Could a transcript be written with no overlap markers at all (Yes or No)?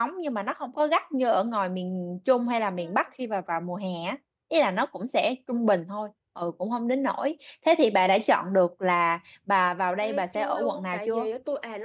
No